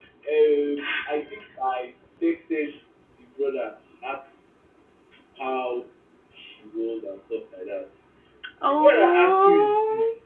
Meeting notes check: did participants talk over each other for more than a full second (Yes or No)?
Yes